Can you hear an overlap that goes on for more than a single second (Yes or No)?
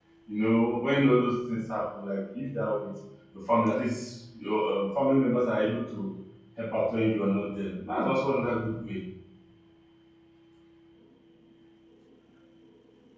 No